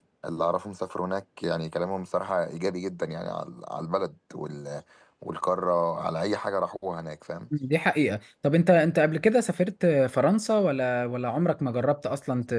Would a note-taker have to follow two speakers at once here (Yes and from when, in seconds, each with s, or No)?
No